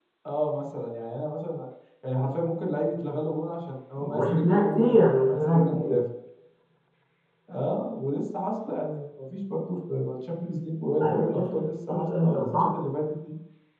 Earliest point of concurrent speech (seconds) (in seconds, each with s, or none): 4.0 s